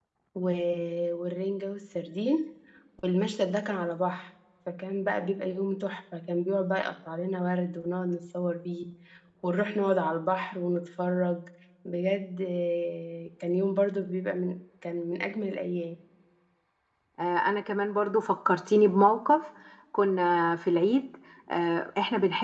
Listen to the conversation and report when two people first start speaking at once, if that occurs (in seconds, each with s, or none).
none